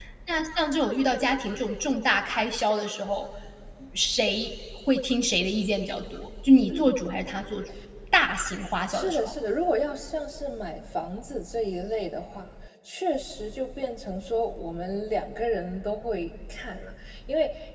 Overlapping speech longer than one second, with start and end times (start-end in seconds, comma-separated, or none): none